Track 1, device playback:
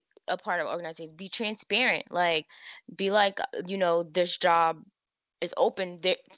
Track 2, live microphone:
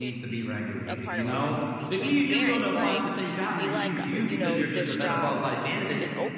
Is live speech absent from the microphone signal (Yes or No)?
No